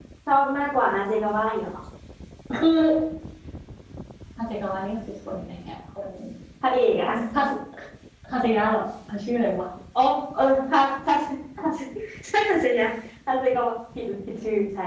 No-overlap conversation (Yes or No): Yes